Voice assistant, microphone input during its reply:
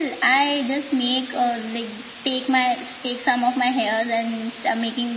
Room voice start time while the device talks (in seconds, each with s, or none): none